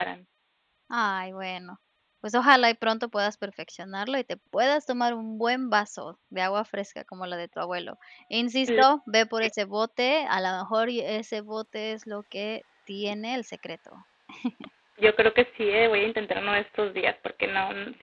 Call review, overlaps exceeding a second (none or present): none